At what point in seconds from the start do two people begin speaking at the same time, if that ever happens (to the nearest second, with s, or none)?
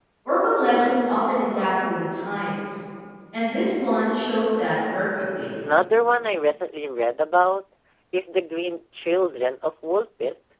none